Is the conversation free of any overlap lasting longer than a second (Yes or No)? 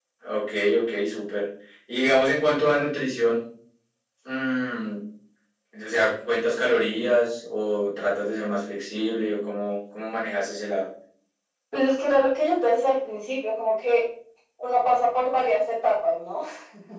Yes